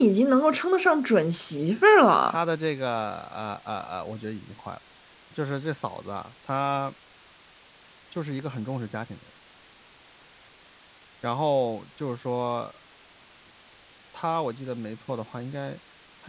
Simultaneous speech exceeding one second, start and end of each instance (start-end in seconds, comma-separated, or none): none